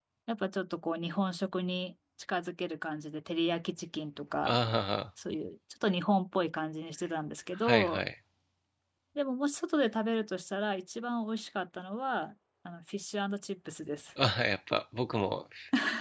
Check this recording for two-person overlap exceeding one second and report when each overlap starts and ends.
none

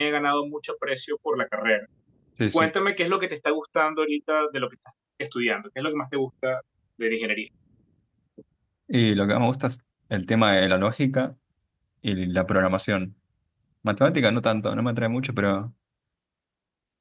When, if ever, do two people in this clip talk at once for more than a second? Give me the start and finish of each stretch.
none

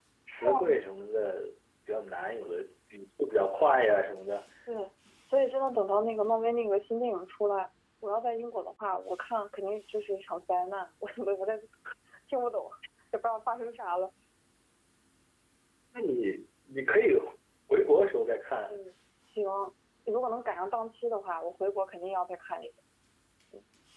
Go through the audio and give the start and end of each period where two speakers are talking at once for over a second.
none

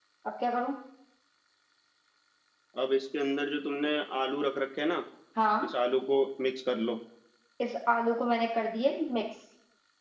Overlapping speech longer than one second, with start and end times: none

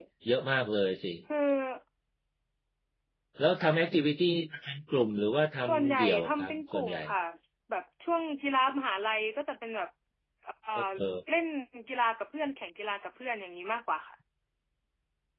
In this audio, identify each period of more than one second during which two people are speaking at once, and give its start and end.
5.7-7.0

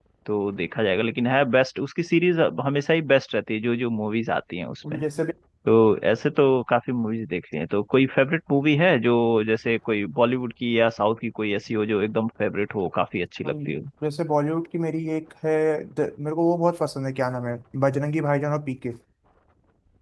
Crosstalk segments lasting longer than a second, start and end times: none

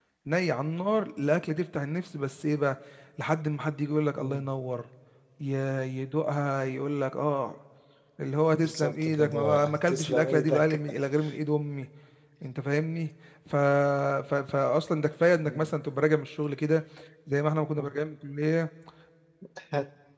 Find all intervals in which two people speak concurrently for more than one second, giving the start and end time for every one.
8.6-10.8

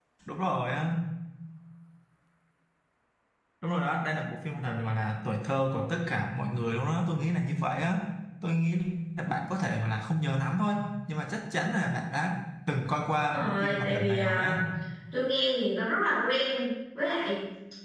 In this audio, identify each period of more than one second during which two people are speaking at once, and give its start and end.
13.3-14.5

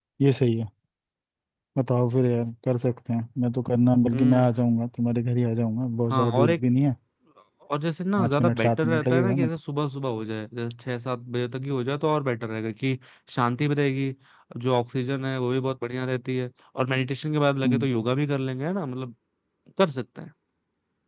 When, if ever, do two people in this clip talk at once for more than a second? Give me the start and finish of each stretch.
8.2-9.5

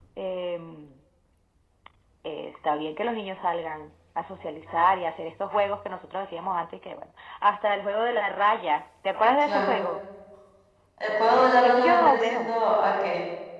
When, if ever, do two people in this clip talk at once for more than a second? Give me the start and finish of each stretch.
11.4-12.6

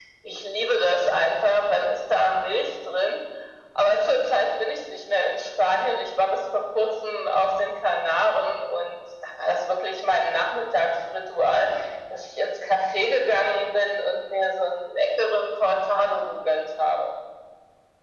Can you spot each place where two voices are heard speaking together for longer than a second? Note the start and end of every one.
none

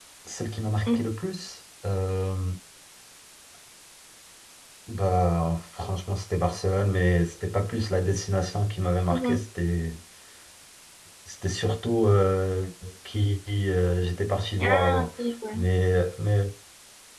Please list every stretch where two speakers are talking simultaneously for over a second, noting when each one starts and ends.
none

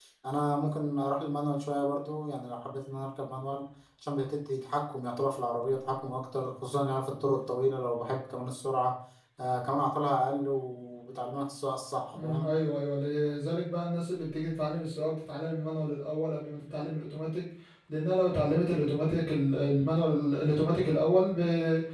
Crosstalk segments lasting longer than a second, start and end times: none

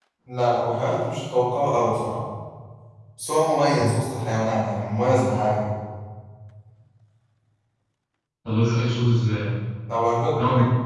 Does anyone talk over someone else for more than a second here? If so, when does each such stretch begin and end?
none

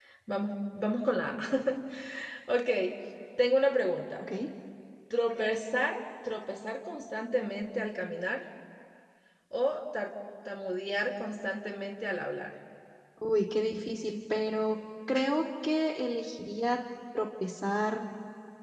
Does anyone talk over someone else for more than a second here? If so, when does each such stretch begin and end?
none

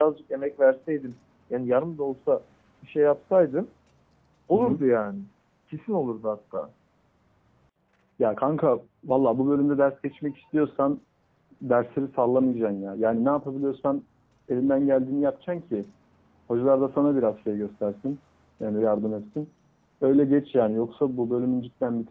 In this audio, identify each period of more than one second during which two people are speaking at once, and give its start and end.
none

